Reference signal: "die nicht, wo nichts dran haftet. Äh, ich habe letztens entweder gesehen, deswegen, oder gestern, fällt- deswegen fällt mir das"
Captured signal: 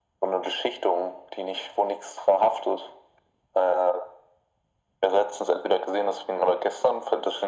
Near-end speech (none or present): none